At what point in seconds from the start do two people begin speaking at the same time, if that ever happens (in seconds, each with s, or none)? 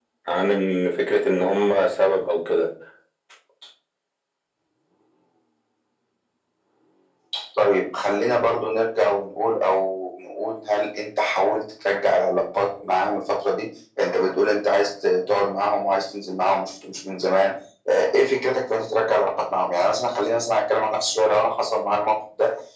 none